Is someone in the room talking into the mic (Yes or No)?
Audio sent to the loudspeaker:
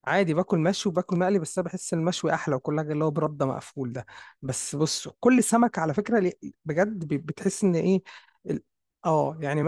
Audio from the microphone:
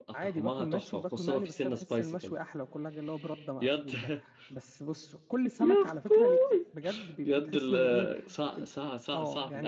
Yes